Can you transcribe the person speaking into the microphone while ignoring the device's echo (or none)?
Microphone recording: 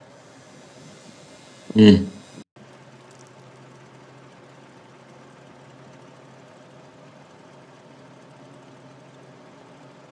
مم.